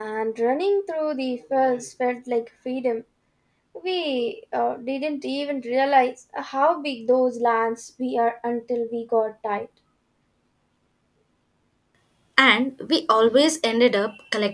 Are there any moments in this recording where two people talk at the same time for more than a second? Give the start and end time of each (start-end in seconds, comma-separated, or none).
none